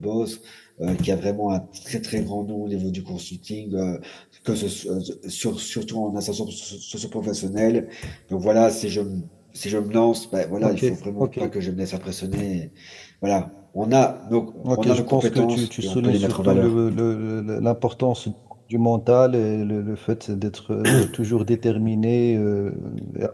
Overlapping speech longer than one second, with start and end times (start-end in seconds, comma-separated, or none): 14.6-16.8